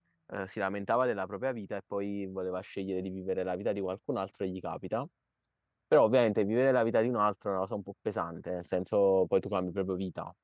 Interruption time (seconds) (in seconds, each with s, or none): none